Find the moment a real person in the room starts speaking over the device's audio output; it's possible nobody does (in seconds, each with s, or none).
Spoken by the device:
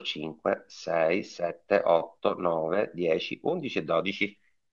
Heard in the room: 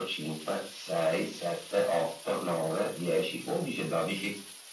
none